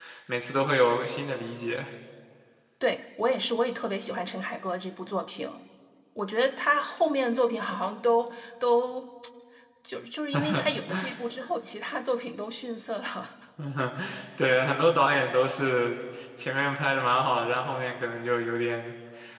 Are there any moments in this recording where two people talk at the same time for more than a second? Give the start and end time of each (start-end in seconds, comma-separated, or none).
none